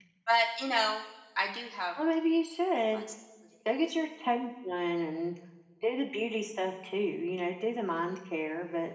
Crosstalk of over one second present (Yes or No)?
No